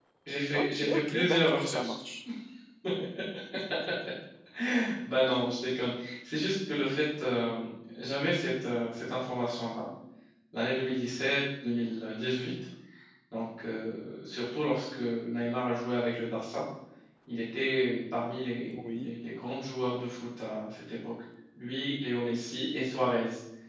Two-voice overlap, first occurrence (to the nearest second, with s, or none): 1 s